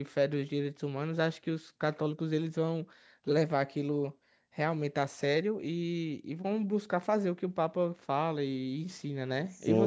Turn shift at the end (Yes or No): Yes